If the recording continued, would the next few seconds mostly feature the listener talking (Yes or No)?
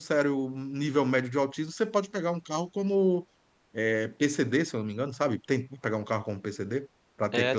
Yes